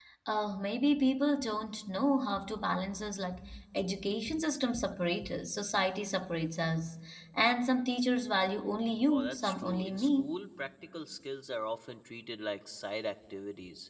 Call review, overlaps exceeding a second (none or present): present